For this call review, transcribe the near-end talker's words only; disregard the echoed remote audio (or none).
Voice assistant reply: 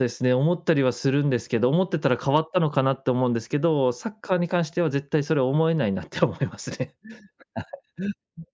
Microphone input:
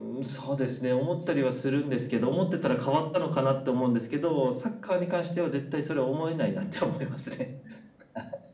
none